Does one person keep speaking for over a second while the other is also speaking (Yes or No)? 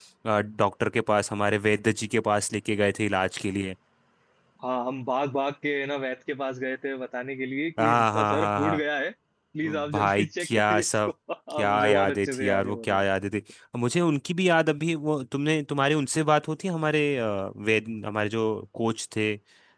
Yes